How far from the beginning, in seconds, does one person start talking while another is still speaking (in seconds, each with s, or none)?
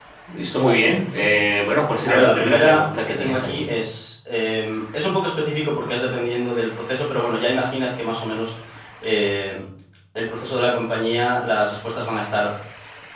2.1 s